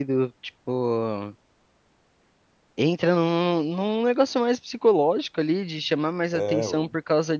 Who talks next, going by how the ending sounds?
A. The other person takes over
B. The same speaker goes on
B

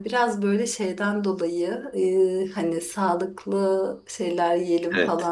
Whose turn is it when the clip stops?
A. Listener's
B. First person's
B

